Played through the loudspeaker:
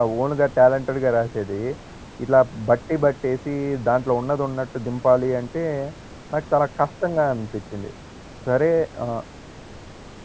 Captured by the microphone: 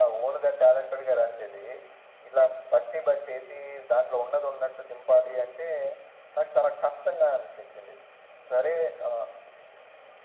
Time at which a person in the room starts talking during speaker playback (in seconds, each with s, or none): none